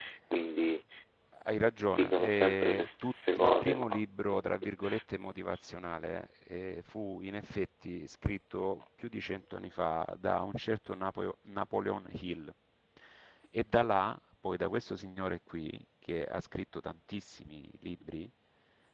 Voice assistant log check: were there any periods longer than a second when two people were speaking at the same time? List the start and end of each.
1.9-4.0

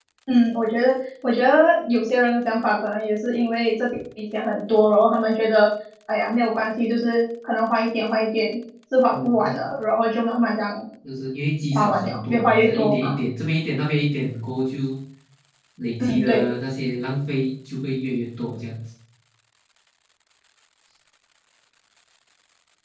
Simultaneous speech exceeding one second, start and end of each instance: 11.7-13.2

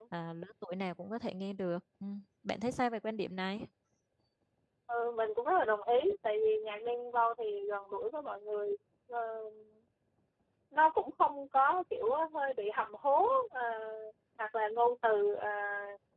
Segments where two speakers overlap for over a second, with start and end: none

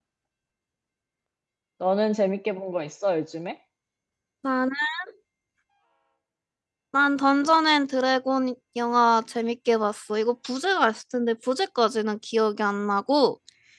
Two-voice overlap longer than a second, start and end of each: none

